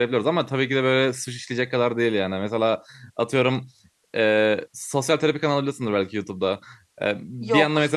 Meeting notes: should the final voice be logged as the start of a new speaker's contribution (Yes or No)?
No